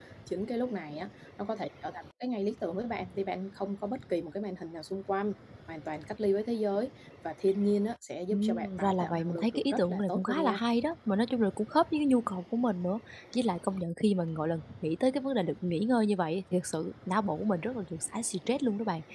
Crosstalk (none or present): present